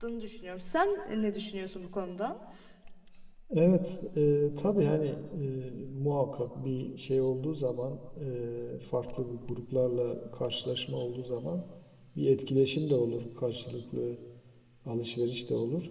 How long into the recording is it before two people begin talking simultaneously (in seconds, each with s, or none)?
none